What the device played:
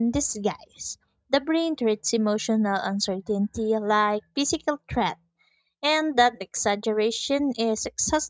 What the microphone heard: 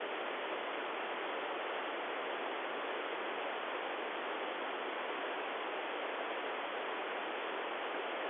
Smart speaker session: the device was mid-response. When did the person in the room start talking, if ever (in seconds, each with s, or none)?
none